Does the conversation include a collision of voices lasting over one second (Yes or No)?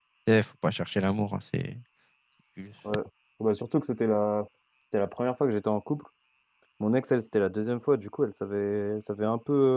No